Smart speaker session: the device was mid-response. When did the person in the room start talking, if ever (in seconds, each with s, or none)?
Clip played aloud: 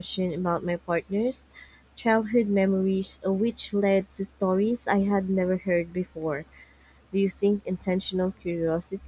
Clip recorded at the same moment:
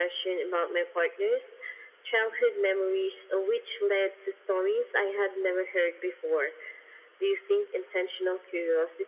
none